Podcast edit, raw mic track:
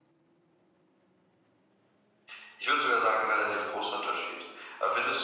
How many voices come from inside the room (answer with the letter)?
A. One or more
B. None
B